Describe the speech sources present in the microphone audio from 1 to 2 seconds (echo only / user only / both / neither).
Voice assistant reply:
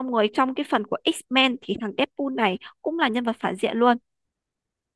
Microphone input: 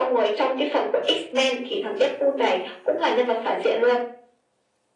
echo only